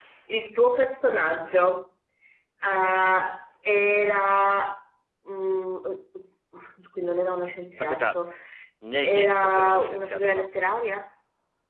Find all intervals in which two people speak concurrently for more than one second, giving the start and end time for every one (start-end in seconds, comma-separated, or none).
9.0-10.5